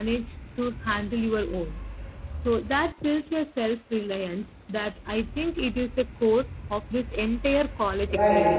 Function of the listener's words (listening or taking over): taking over